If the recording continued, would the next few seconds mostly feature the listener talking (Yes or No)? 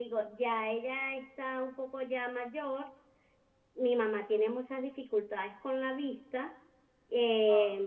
No